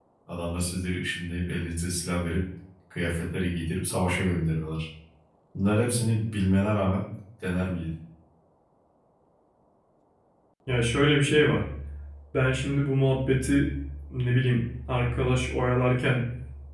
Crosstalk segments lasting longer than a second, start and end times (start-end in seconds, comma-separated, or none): none